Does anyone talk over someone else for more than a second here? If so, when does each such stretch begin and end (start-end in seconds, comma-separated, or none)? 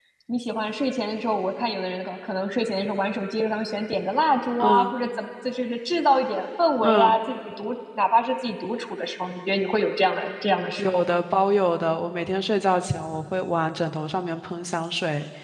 none